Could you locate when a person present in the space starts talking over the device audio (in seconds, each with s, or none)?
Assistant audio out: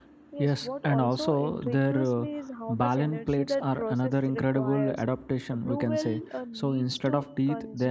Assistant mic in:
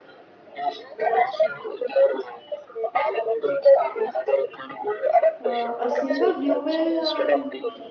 5.4 s